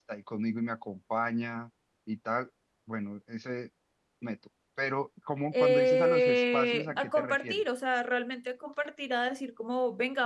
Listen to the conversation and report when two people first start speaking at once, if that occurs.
5.5 s

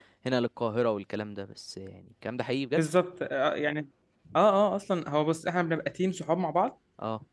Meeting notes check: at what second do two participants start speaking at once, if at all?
none

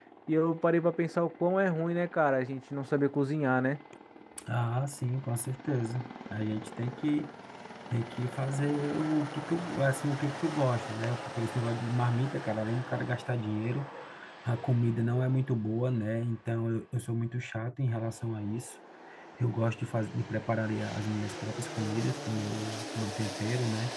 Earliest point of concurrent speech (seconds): none

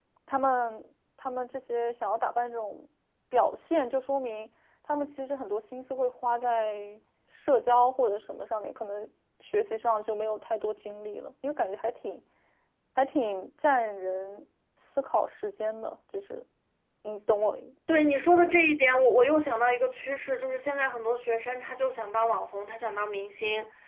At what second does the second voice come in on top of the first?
none

